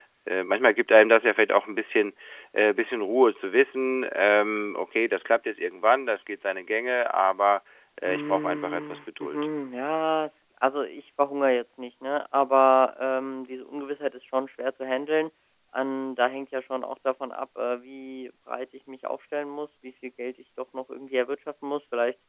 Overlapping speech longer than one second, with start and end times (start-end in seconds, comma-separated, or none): 8.0-9.5